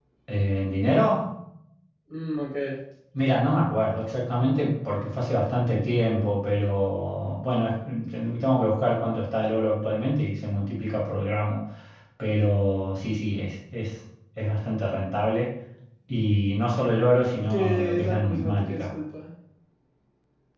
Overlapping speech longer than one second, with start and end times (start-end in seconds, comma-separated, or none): 17.5-18.9